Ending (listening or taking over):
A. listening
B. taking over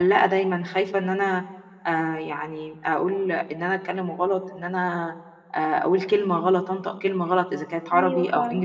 A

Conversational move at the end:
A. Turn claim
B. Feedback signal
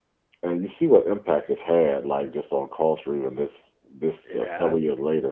B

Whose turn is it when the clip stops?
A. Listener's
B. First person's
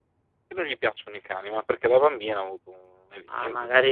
A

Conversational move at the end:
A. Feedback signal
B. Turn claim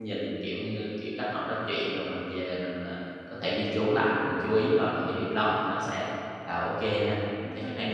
B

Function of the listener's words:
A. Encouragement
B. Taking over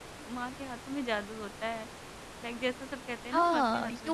B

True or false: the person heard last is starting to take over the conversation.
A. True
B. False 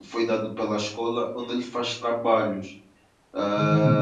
A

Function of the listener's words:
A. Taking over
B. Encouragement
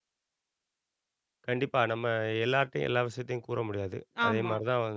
B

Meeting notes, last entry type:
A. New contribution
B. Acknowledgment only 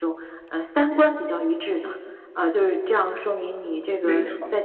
B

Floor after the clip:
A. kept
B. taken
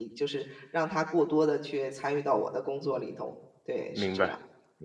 B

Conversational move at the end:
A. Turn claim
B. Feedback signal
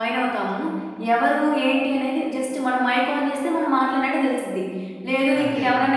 B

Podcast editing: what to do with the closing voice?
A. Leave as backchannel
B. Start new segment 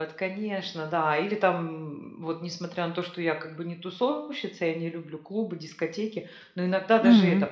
A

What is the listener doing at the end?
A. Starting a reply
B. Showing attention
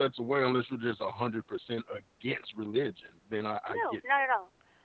A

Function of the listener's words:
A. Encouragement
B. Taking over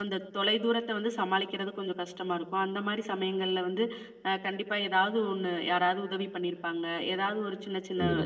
A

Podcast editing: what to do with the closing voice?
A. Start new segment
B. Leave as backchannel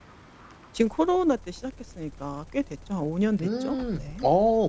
A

